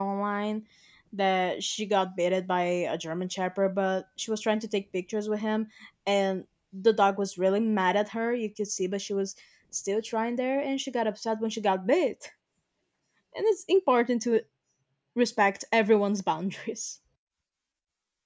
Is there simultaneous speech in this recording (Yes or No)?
No